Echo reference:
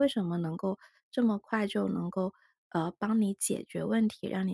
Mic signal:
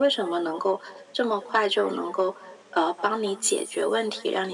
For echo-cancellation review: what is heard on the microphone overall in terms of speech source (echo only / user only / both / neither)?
echo only